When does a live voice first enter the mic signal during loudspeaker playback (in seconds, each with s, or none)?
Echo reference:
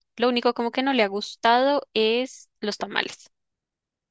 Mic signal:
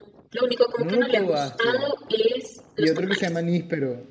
0.7 s